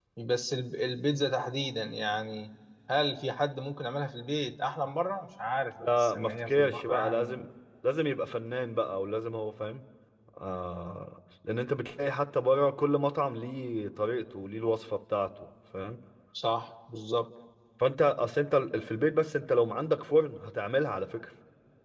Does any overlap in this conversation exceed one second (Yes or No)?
Yes